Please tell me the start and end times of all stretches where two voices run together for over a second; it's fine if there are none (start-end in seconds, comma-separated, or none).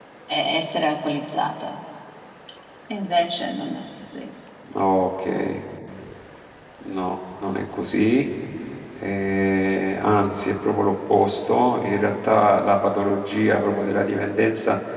none